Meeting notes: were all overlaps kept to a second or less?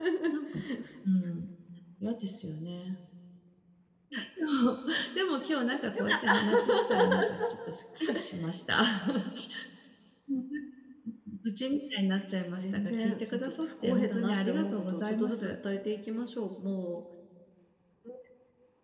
No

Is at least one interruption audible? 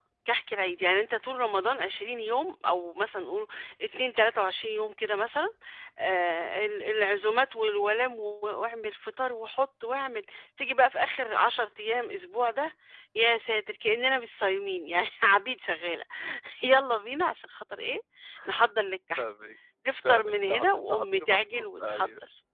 Yes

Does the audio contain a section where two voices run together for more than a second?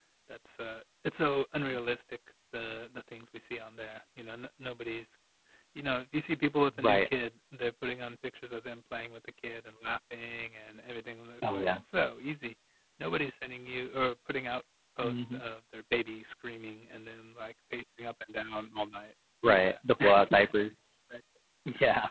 No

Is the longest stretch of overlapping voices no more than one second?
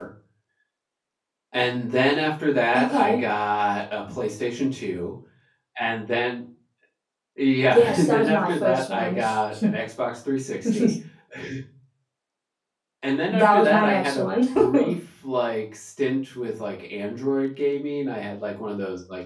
No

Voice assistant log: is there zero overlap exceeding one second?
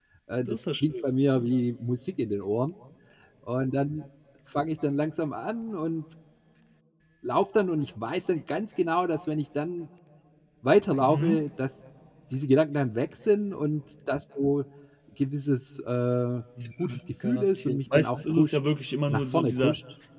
No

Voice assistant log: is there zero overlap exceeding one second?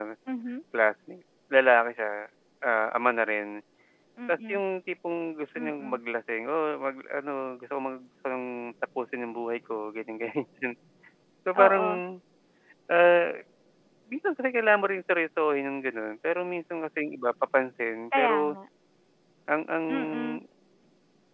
Yes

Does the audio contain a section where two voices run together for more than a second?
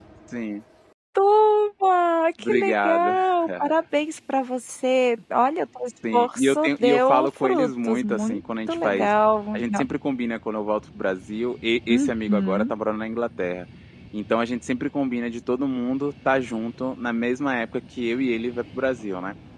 Yes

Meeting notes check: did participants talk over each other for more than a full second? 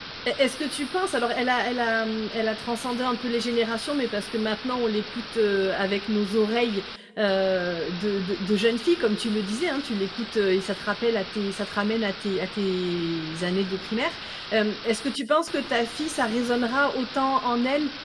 No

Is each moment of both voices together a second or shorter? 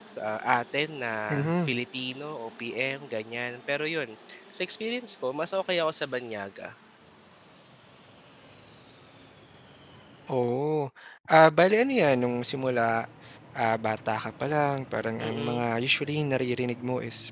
Yes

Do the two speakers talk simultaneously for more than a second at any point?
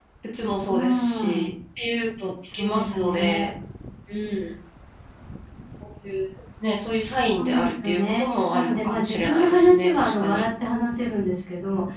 Yes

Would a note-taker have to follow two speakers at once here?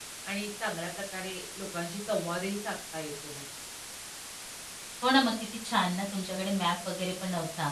No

